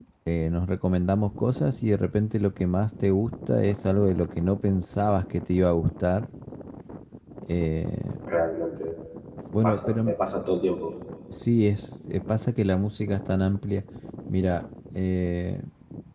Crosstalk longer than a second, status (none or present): none